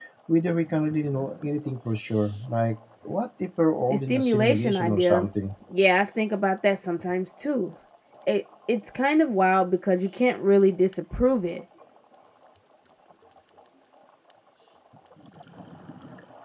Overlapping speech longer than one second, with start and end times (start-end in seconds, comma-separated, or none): 3.9-5.3